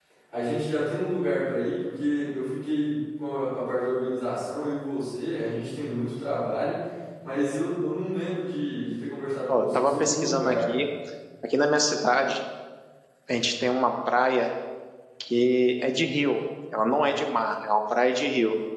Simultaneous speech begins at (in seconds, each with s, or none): 9.5 s